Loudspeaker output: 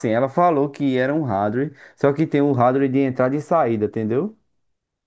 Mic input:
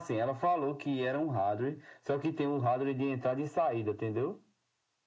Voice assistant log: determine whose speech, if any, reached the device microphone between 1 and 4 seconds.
echo only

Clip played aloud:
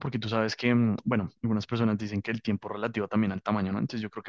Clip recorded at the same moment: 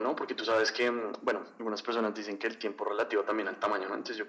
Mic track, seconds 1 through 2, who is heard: echo only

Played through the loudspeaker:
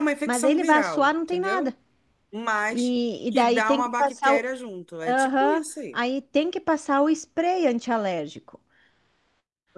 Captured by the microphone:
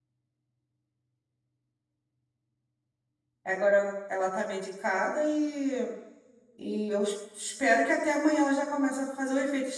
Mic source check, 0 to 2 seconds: neither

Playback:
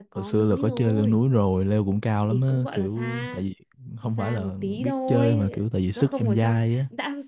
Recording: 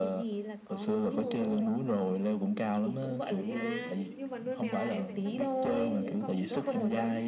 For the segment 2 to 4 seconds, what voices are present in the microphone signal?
both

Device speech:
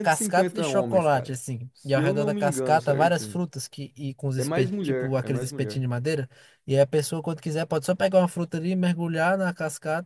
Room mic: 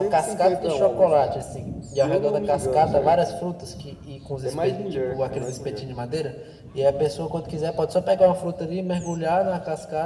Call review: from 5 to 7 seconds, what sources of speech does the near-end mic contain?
echo only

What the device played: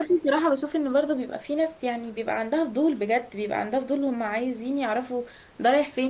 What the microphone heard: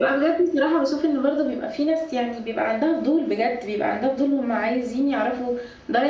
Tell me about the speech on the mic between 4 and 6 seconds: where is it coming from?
echo only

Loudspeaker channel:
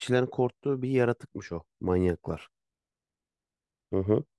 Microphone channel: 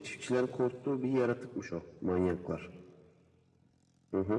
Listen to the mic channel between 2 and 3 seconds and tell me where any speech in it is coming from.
echo only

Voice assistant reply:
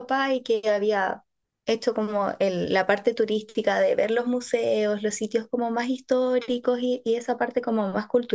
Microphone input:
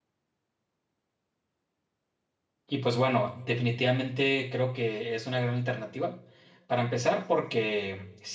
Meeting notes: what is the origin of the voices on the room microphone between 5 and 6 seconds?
user only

